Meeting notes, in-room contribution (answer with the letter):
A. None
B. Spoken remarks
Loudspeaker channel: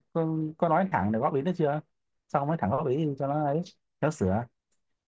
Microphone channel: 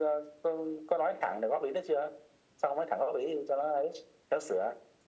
A